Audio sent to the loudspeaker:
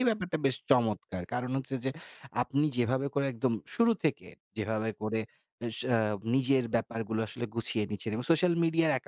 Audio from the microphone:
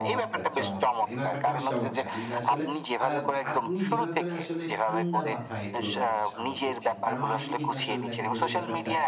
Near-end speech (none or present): present